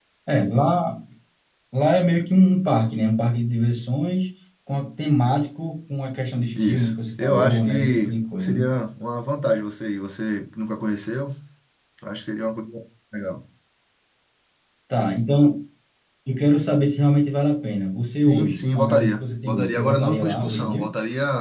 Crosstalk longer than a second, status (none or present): present